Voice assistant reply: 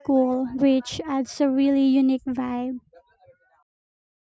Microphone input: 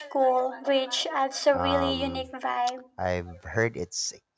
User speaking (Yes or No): Yes